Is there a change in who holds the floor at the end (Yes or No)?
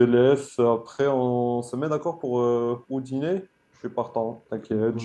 Yes